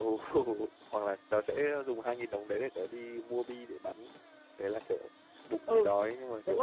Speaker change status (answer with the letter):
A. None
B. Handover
B